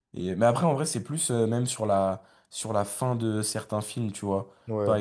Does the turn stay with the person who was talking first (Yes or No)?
Yes